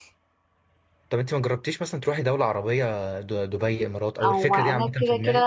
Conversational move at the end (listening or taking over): taking over